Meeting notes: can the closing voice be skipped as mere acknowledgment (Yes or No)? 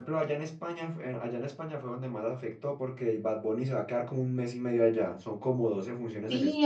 No